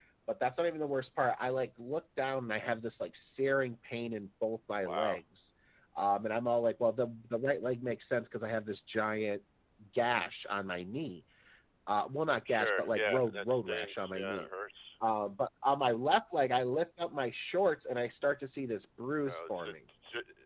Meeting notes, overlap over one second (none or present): present